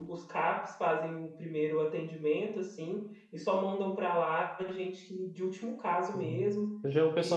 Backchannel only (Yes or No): No